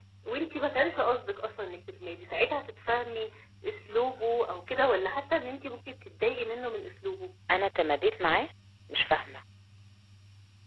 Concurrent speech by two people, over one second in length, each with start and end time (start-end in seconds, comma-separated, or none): none